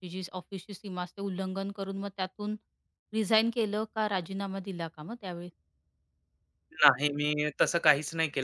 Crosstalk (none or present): none